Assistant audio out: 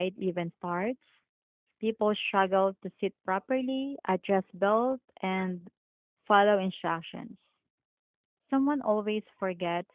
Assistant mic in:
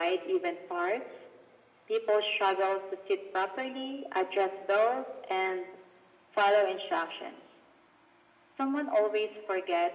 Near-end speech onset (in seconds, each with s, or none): none